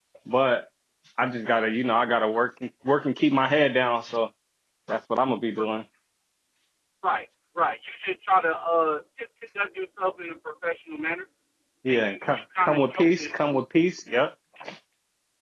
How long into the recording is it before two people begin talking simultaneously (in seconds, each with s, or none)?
11.9 s